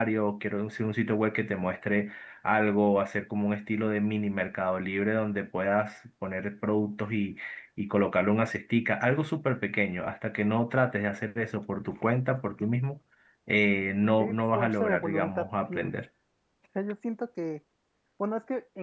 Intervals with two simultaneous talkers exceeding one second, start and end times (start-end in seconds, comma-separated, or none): 14.2-15.9